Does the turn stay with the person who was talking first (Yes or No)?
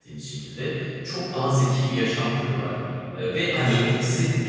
Yes